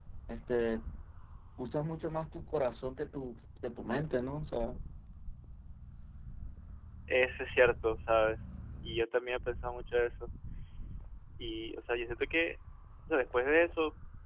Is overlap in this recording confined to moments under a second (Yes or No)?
Yes